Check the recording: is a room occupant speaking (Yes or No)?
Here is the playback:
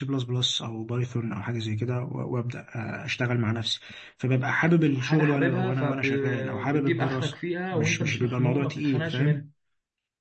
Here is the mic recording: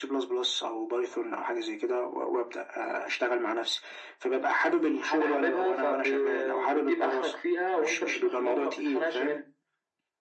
No